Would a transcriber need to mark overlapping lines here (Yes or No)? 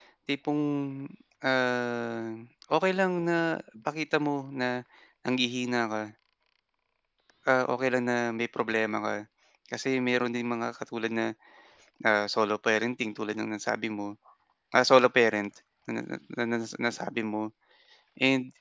No